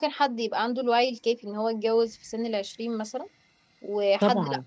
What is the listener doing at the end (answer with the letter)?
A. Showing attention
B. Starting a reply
A